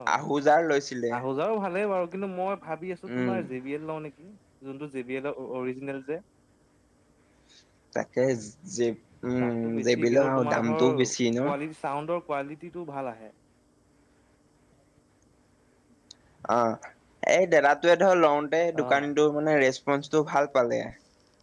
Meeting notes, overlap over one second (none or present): present